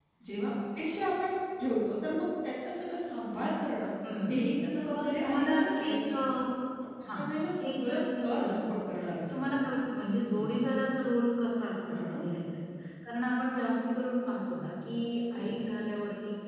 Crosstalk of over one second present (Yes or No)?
Yes